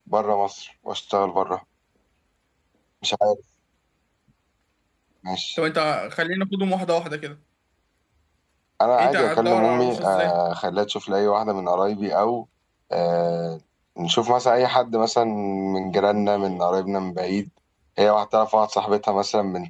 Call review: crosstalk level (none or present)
present